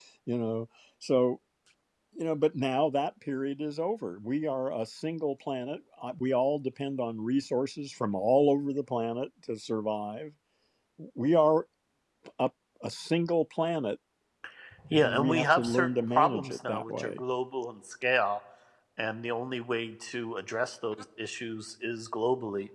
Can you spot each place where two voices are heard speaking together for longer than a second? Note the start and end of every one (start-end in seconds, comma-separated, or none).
15.0-17.2